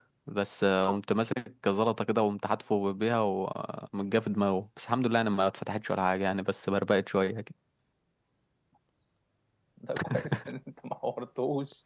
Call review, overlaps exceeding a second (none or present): none